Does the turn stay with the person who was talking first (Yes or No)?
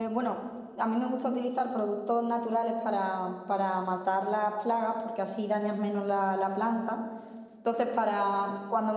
Yes